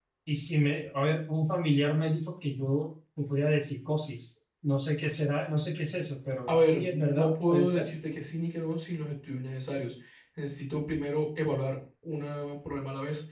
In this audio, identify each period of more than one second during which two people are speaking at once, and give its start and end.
6.5-7.9

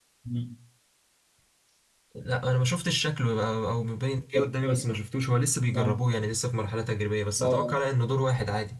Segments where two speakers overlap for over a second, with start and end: none

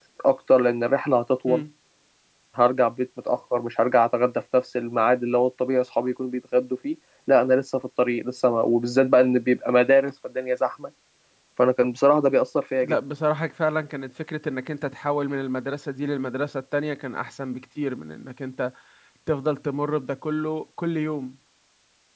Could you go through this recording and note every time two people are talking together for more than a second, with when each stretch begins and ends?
none

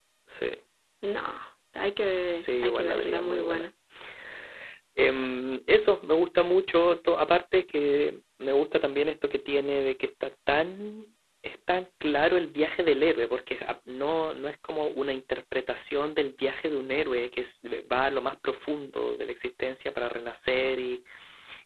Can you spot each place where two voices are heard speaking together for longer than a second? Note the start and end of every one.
2.4-3.7

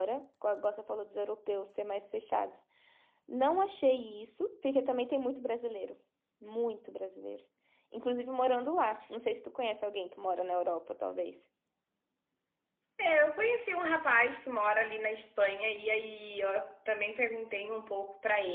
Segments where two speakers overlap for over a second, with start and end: none

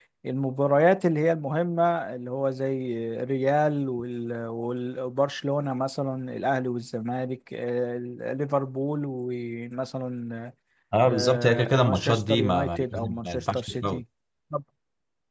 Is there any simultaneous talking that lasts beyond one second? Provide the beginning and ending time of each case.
11.1-14.0

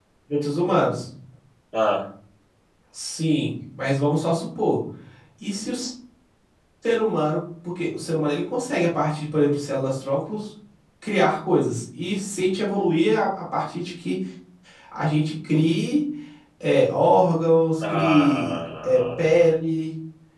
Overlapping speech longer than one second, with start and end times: 17.8-19.4

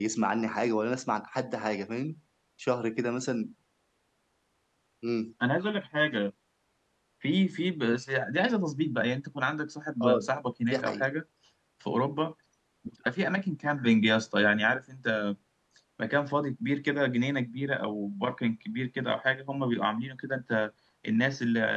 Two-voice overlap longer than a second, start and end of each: none

